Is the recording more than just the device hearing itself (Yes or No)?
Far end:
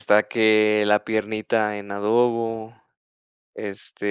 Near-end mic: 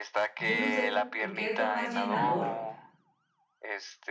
Yes